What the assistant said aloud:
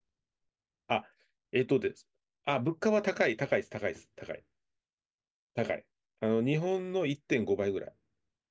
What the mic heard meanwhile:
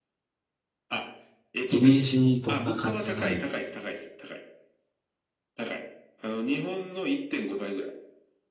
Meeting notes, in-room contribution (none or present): present